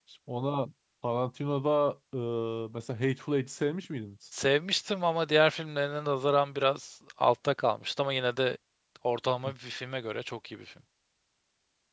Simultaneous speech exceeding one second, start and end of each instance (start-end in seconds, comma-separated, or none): none